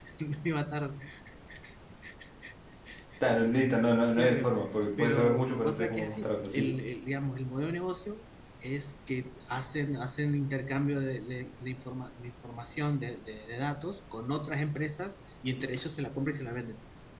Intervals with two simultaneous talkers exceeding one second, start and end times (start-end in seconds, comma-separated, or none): 5.0-6.7